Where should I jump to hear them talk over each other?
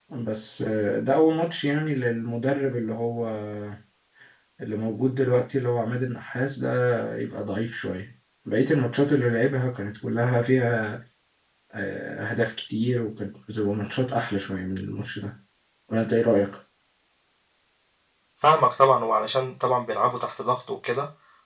none

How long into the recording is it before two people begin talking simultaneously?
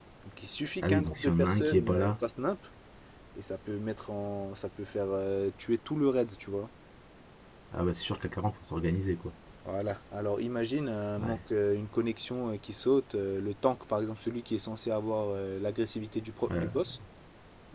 0.8 s

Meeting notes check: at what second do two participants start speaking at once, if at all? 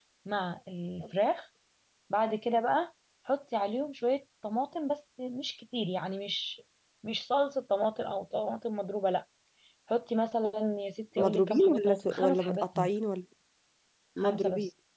11.2 s

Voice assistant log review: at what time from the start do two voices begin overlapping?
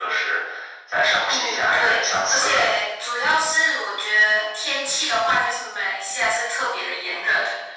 1.3 s

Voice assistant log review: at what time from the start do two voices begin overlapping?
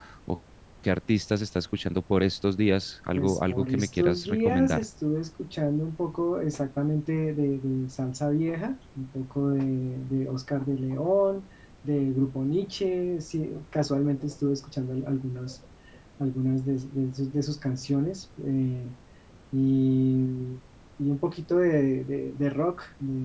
3.1 s

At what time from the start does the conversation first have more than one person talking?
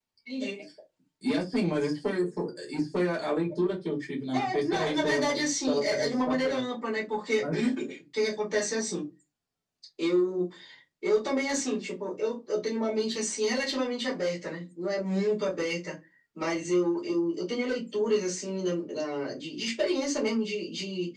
4.3 s

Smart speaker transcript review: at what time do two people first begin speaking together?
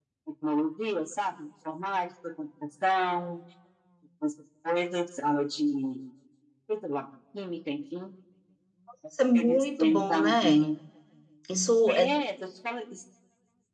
9.3 s

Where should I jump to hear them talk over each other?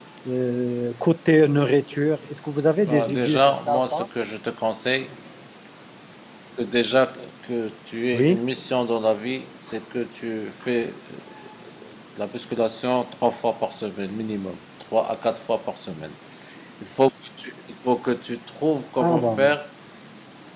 2.9 s

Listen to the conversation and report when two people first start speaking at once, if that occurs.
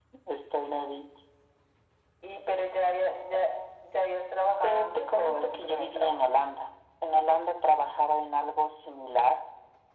4.6 s

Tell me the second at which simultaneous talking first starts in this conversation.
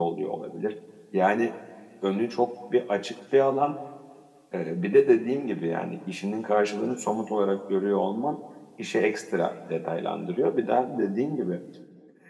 none

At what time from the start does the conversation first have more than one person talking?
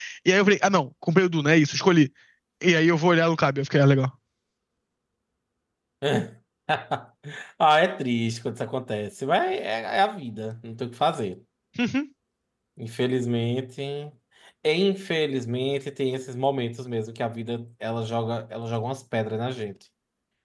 none

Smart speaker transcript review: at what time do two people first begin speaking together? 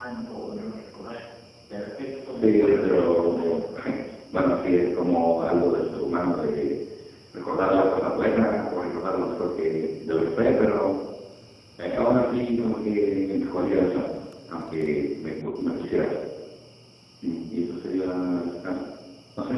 2.3 s

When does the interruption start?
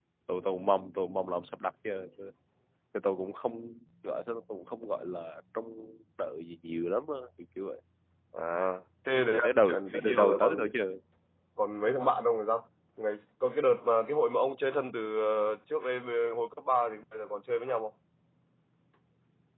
9.3 s

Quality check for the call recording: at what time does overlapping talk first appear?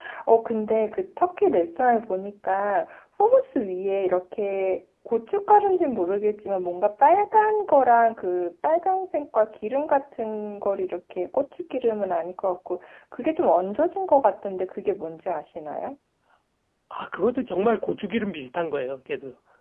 none

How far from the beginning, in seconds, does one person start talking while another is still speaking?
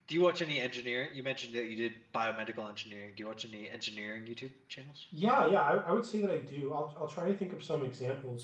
none

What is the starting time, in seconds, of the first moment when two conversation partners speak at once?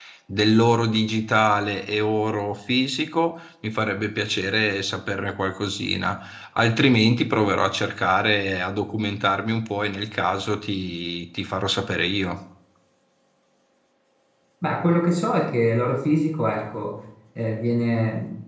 none

